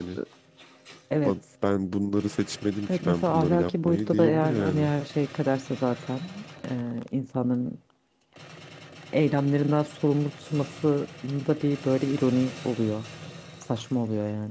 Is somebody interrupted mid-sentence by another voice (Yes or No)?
Yes